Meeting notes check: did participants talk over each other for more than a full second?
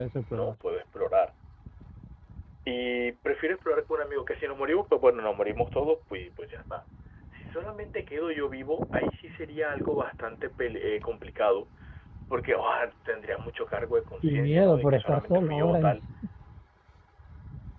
Yes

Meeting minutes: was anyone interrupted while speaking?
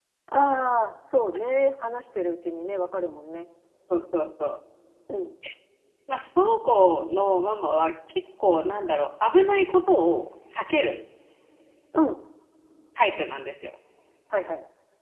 No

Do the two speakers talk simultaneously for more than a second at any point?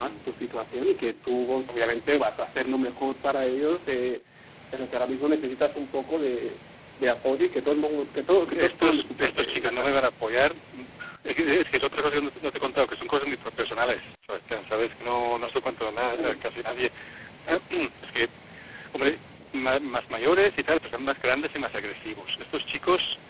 Yes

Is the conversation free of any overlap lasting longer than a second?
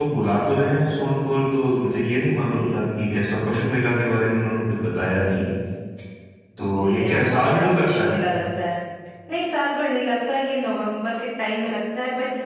No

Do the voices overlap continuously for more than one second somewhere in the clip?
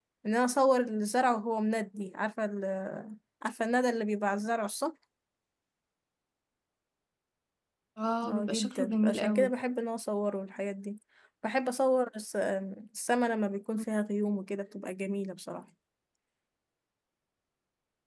Yes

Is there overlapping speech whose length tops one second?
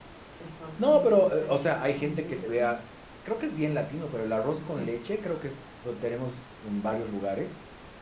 Yes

